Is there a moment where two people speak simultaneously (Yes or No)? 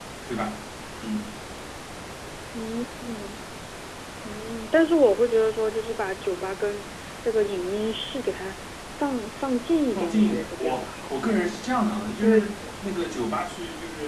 Yes